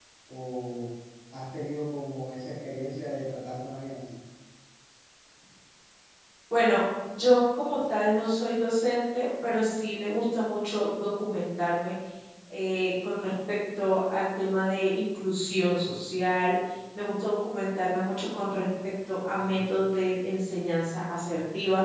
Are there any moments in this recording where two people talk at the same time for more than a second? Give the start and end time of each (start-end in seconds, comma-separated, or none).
none